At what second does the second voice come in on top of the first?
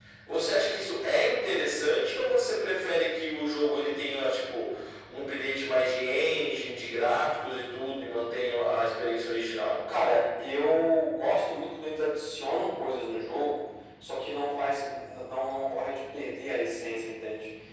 none

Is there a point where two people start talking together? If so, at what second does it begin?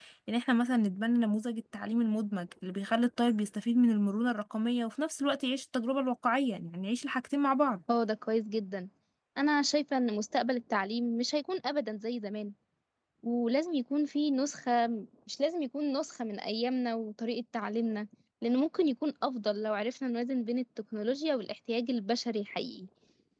none

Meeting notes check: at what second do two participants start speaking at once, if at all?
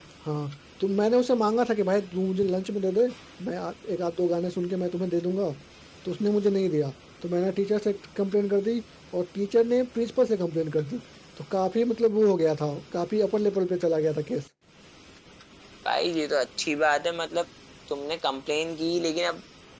none

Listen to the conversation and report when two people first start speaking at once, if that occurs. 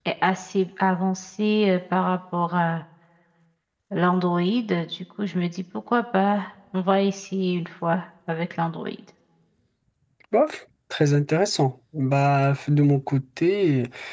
none

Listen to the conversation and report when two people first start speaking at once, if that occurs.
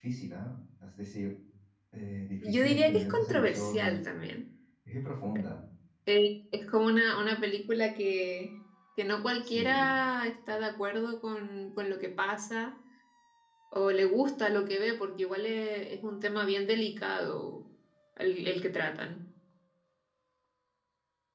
2.4 s

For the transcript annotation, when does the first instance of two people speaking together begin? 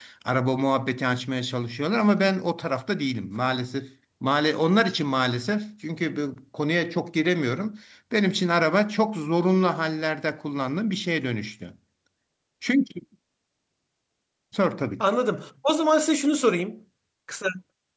none

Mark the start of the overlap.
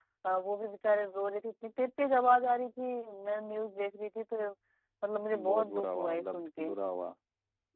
5.3 s

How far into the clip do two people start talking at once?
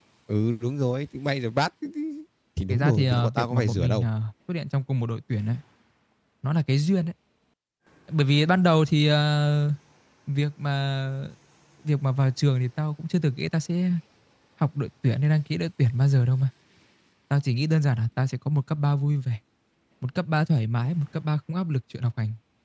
2.7 s

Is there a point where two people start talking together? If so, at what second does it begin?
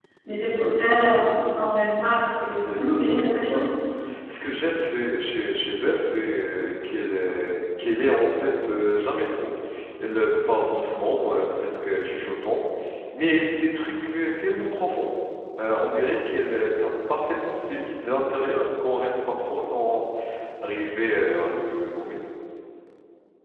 2.3 s

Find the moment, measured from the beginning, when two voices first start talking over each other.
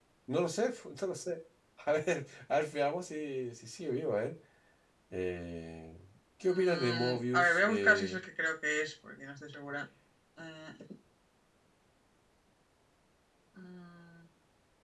6.5 s

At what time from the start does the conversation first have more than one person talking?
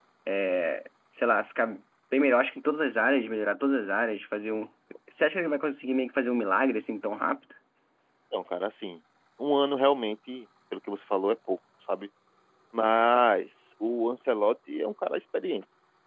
none

